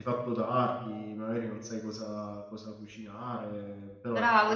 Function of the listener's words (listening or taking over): taking over